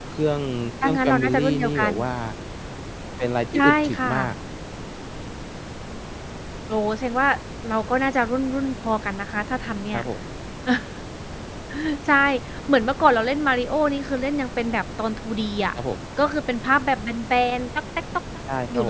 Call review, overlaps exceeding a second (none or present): present